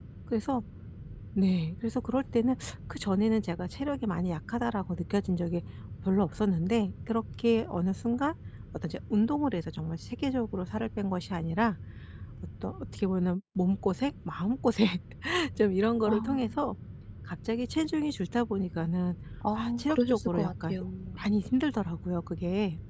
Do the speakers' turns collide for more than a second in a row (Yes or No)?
Yes